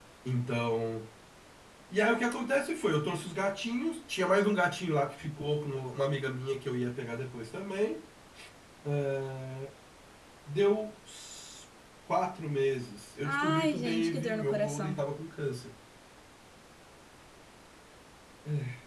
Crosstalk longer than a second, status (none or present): present